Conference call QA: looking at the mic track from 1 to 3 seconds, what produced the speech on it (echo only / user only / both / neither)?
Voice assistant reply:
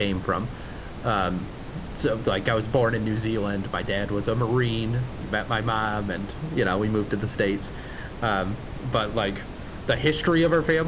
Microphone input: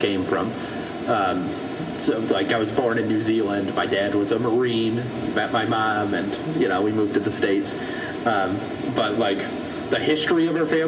echo only